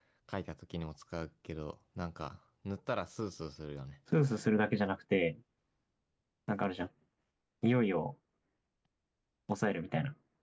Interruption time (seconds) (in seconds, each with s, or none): none